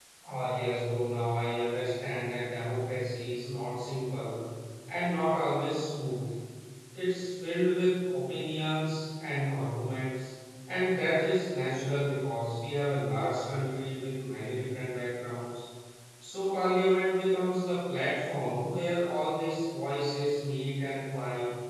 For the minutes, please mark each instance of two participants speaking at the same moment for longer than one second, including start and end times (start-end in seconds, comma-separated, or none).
none